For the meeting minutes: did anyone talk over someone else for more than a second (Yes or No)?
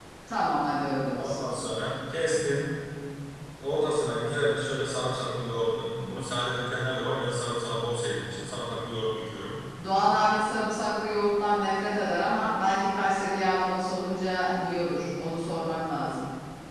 No